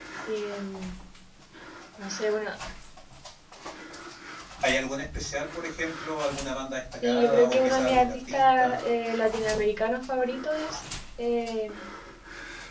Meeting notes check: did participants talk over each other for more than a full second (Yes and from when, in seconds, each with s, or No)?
Yes, from 7.0 s